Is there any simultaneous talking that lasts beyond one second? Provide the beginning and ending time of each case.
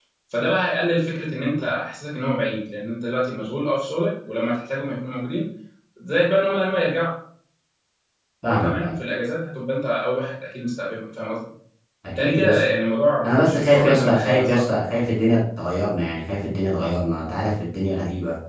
13.2-14.7

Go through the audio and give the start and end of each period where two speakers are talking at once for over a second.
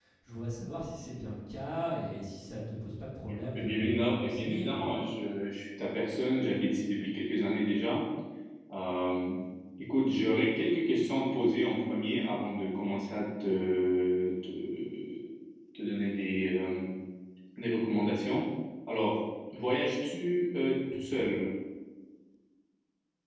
3.5-4.8

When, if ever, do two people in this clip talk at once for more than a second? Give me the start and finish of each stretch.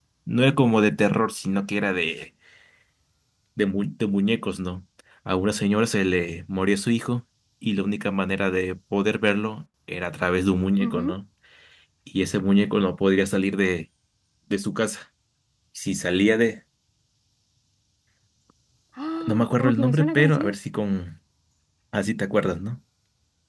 19.3-20.6

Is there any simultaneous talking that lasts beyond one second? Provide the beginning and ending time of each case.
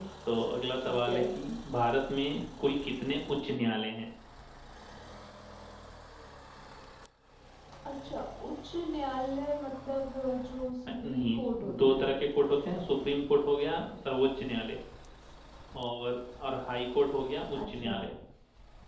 none

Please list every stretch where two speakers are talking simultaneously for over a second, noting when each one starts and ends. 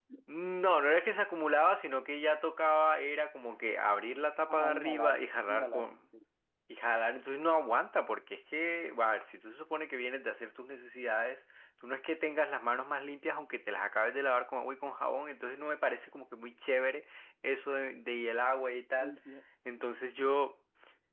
4.5-5.9

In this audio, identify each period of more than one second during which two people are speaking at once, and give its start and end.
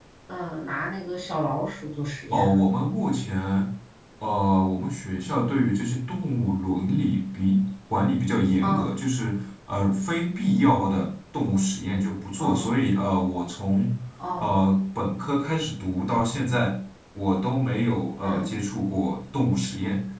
none

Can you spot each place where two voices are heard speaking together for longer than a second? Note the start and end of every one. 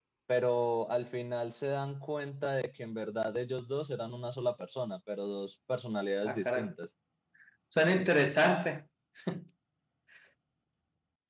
none

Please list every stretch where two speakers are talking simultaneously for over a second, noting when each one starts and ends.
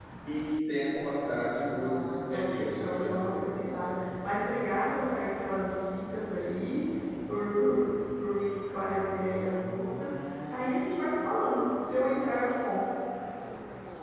1.7-3.9

